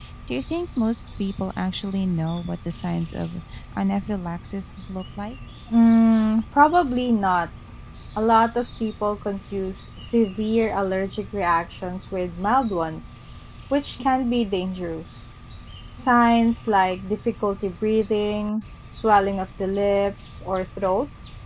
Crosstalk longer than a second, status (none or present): none